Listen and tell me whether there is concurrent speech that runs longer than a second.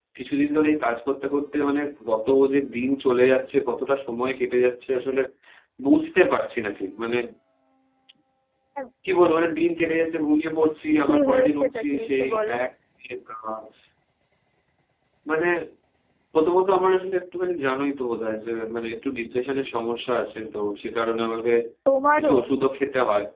Yes, from 11.1 s

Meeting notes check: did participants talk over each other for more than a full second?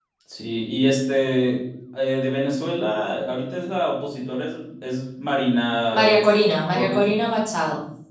No

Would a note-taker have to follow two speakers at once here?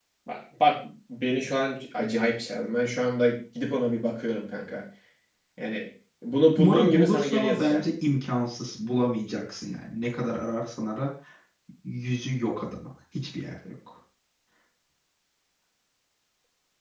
Yes, from 6.6 s

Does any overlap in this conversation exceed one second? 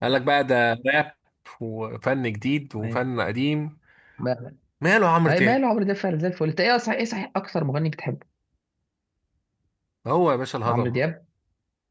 No

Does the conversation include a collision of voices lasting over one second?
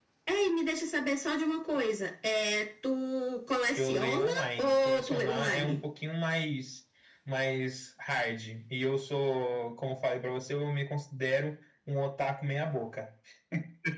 Yes, from 3.8 s

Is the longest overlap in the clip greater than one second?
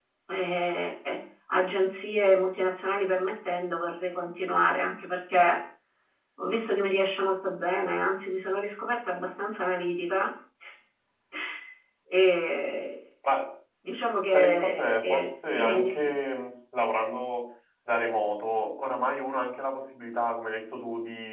Yes, from 14.3 s

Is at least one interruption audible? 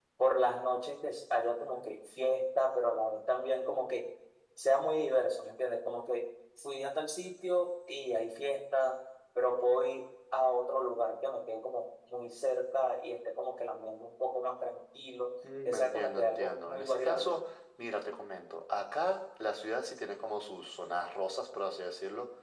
Yes, from 15.4 s

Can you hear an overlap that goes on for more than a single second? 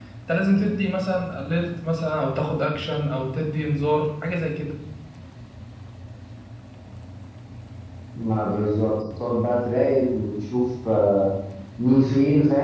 No

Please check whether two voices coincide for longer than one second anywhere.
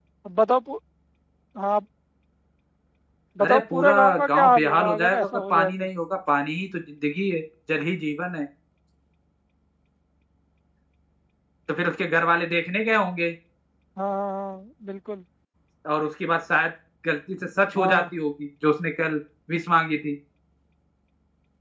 Yes, from 3.4 s

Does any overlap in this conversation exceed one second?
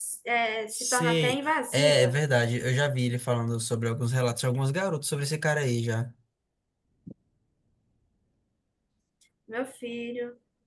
Yes, from 0.7 s

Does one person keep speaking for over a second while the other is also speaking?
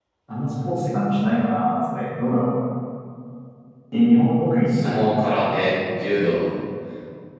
No

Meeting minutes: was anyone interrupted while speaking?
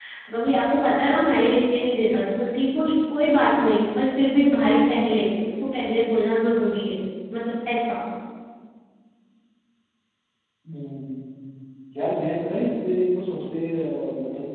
No

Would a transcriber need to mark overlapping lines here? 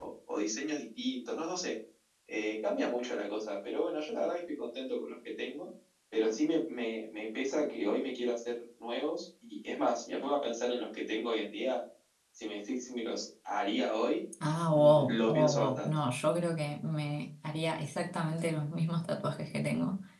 Yes, from 14.7 s

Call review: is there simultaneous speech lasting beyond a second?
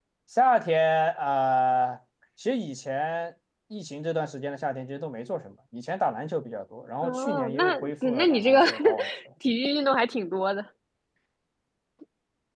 Yes, from 7.0 s

